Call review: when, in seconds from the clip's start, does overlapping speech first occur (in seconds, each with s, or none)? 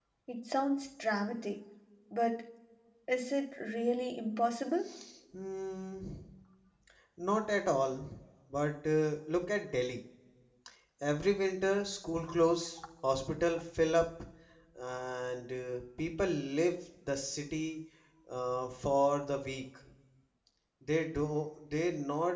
none